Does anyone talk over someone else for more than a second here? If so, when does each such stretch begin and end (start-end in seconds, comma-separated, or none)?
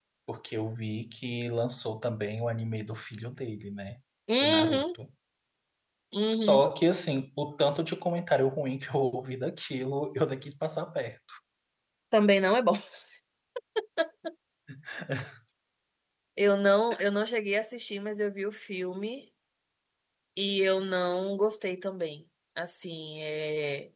none